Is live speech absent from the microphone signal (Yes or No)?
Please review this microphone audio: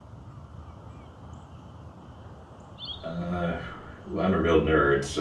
No